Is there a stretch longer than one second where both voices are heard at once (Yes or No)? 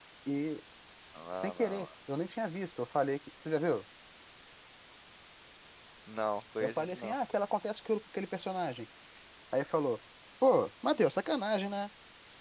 No